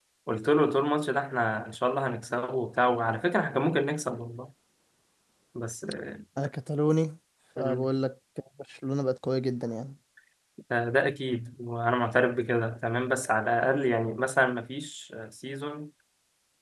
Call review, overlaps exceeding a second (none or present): none